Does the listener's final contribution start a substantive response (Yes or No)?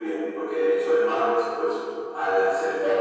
Yes